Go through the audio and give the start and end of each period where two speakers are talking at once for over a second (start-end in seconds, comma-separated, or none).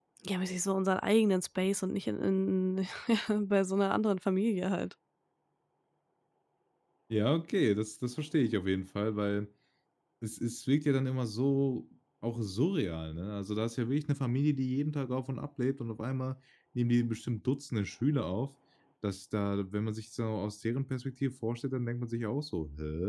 none